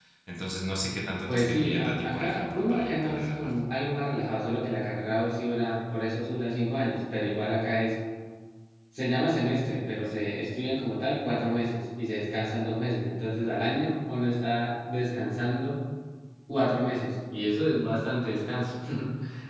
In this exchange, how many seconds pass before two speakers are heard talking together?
1.3 s

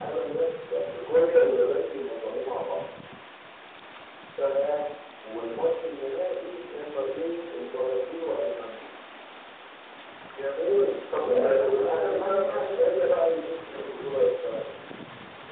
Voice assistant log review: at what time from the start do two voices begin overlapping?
11.2 s

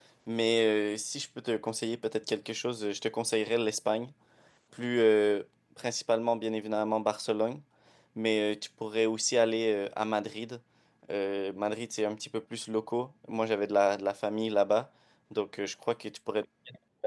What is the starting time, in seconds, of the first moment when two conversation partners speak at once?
none

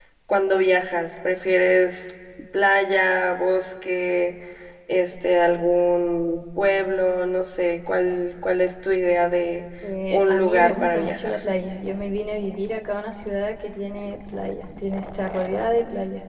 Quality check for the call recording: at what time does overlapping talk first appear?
10.1 s

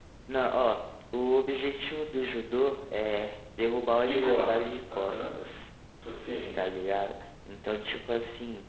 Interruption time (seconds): 3.9 s

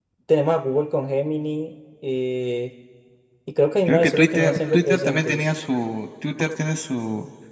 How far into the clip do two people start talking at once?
3.9 s

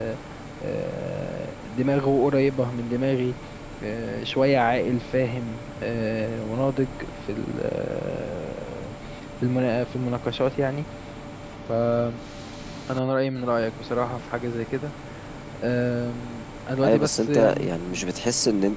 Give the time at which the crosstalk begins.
16.8 s

